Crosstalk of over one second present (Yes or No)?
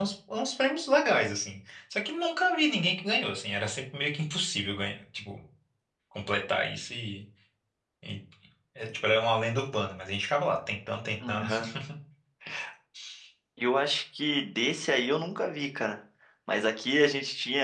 No